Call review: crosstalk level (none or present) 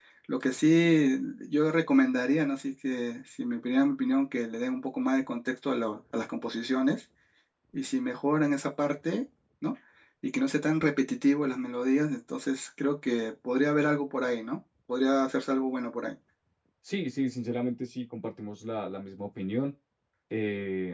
none